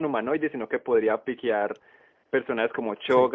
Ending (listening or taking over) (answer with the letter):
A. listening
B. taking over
A